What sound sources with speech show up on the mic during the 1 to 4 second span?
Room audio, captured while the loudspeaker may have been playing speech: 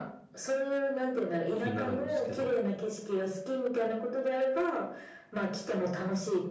both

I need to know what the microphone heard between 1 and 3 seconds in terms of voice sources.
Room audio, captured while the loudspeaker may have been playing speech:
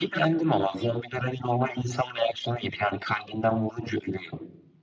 echo only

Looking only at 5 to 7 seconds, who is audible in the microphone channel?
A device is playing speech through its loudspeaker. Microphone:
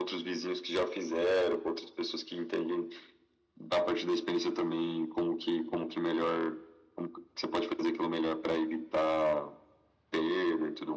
echo only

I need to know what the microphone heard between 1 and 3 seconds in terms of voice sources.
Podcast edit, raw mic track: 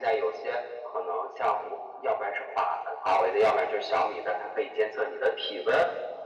echo only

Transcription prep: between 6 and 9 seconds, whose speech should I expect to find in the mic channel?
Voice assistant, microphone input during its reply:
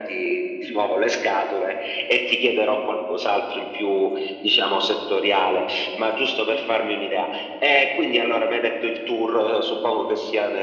echo only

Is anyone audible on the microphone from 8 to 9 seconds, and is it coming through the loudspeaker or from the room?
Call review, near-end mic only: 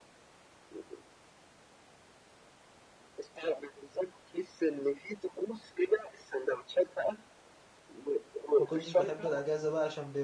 both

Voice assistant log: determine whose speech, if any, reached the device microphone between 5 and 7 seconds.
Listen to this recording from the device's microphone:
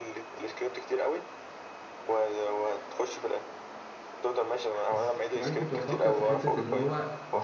both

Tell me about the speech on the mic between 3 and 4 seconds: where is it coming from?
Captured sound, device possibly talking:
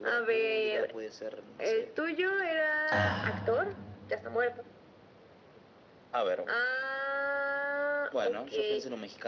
both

